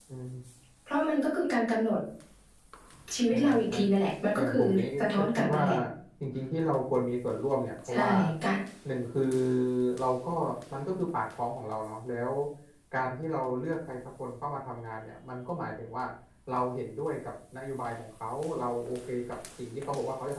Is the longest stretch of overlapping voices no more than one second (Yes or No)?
No